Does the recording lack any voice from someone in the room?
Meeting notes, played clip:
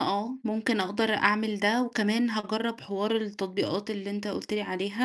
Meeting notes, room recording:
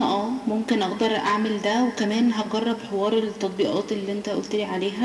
Yes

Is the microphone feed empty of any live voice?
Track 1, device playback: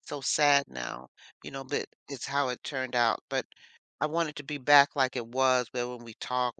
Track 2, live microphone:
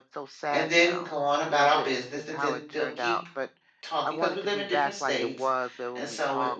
No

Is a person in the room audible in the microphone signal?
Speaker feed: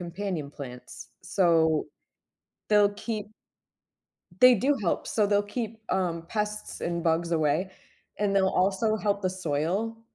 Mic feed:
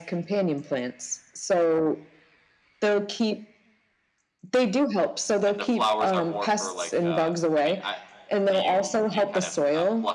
Yes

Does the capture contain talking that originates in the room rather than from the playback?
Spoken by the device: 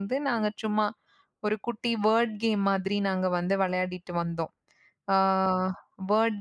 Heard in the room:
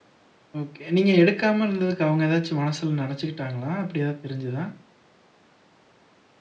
Yes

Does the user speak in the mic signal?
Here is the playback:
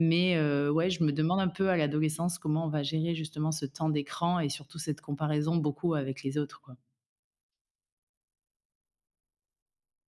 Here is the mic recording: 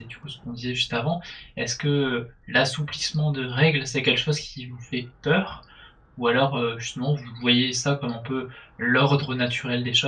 Yes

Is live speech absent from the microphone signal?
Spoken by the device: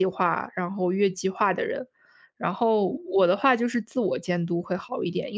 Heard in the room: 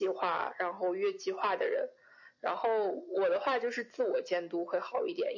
Yes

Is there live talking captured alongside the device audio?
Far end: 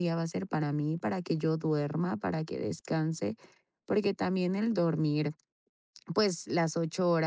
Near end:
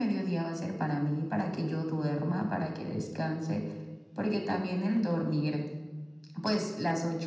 No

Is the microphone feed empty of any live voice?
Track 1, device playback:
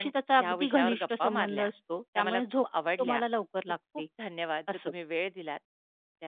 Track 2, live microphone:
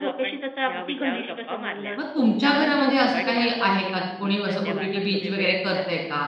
No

